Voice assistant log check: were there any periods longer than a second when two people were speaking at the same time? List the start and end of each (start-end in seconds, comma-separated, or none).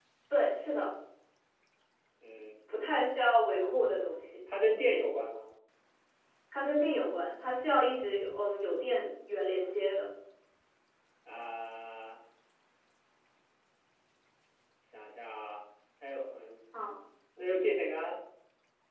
none